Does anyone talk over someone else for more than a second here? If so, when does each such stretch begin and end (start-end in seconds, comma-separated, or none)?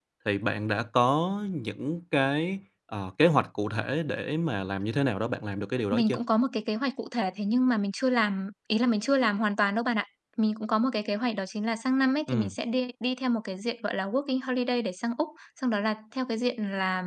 none